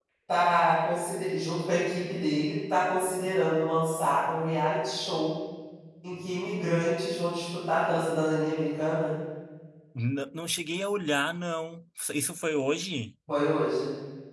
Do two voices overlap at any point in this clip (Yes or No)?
No